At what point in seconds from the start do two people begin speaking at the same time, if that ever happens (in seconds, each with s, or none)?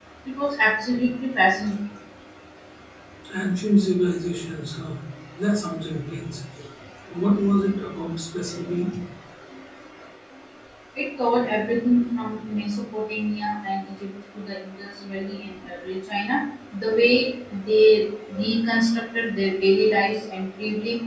none